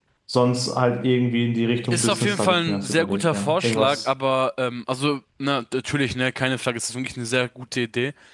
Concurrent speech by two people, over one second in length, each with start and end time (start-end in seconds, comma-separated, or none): 1.9-4.1